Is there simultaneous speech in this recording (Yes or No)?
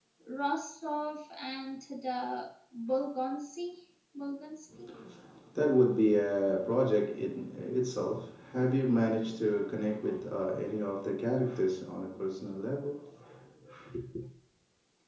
No